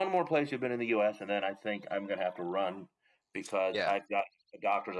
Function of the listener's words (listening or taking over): listening